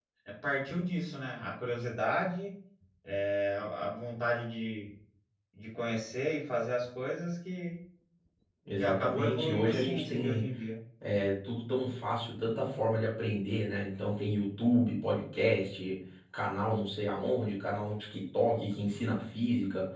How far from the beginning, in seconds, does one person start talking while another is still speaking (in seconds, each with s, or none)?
8.8 s